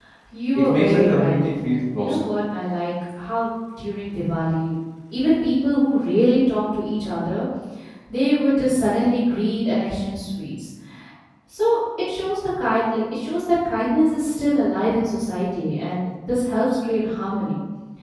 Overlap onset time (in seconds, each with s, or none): 0.6 s